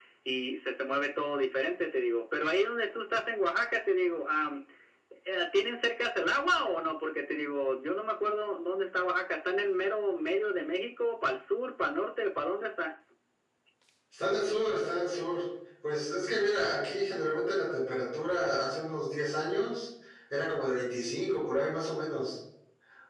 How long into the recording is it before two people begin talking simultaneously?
none

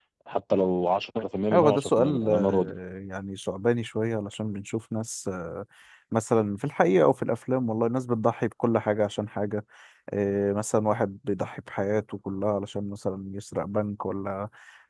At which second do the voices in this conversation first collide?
1.5 s

